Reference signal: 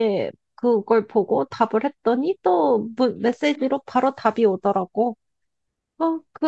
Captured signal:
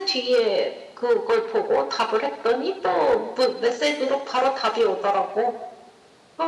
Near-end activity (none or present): none